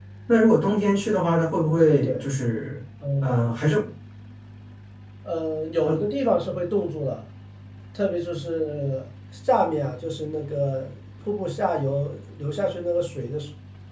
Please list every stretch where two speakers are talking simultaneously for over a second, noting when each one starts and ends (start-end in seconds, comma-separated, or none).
none